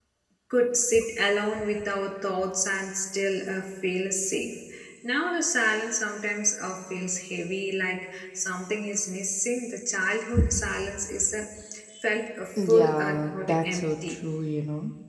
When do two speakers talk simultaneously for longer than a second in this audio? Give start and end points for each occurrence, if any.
12.6-14.2

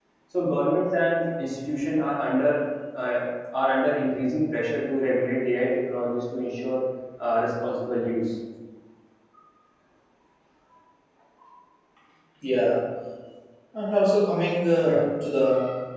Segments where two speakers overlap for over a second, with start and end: none

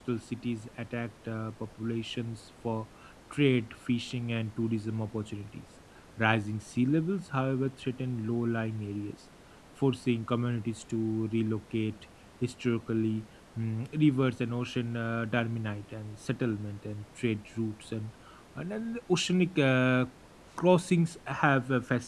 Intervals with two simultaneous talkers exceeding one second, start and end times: none

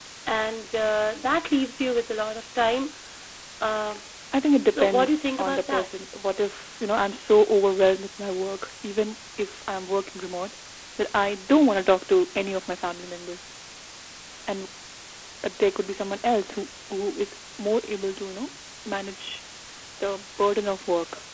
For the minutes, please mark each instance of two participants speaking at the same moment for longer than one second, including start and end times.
4.7-5.9

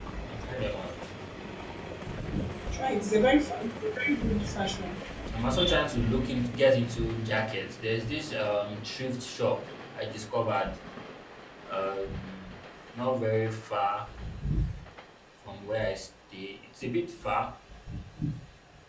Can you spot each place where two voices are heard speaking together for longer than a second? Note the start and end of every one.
none

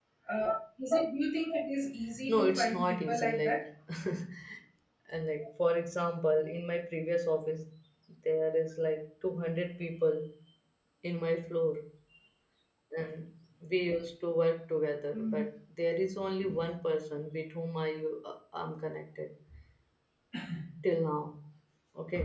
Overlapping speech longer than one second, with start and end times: 2.3-3.7

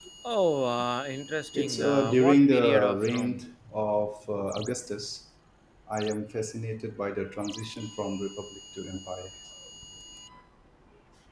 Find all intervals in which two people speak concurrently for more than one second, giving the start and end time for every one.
1.5-3.4

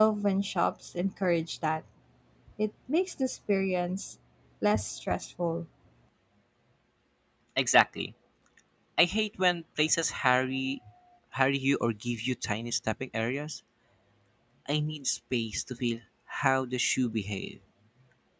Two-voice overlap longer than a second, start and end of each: none

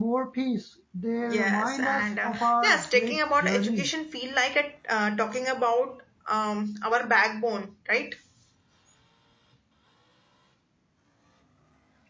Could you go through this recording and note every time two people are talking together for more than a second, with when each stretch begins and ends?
1.2-3.9

